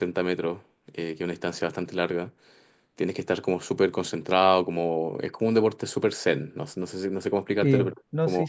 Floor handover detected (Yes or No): Yes